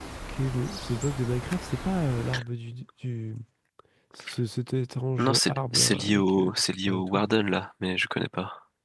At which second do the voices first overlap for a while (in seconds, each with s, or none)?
5.2 s